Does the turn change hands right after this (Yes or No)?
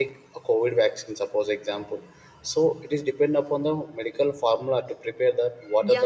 Yes